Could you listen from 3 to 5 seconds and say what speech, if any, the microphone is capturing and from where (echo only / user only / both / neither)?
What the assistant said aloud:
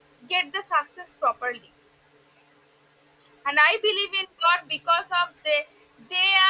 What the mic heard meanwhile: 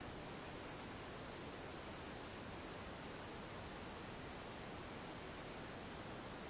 neither